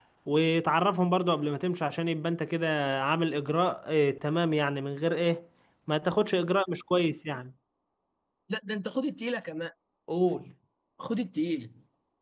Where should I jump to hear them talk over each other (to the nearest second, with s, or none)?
none